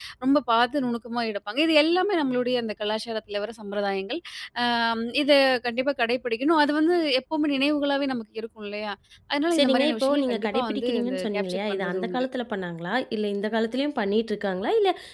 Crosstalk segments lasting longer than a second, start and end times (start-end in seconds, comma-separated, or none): 9.6-12.3